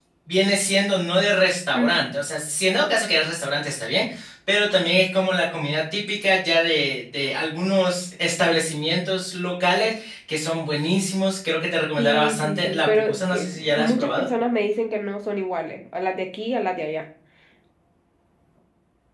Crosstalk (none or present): present